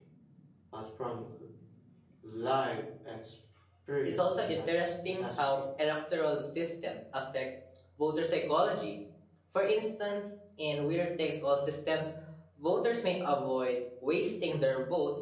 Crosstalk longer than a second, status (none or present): present